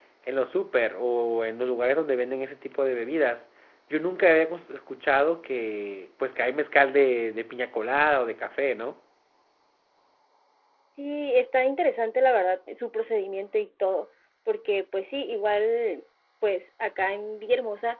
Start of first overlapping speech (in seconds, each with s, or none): none